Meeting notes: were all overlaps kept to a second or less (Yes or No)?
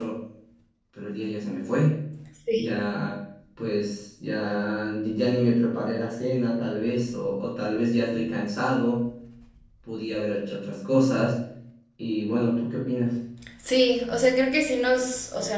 Yes